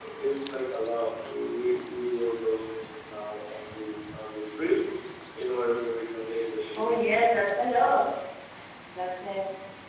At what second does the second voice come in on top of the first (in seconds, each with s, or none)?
none